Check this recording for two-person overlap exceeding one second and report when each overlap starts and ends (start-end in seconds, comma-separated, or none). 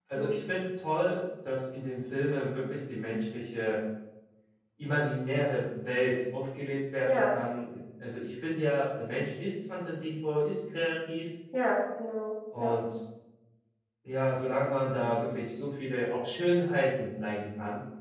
none